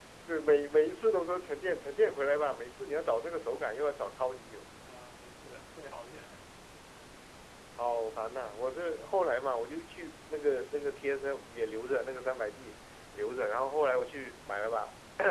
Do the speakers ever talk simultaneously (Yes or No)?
No